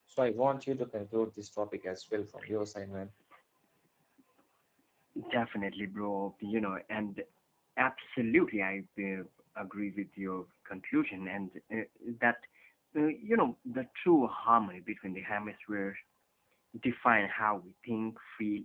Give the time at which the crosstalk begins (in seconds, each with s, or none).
none